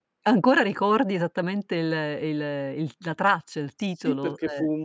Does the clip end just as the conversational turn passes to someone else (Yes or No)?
Yes